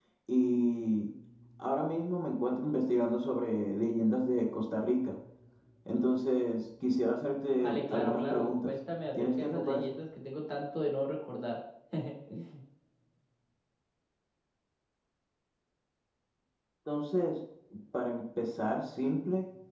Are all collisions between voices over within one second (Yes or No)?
No